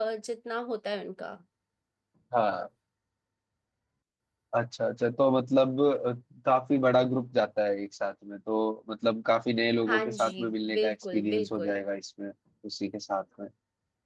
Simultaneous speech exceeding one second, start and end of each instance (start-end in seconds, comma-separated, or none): 9.9-11.8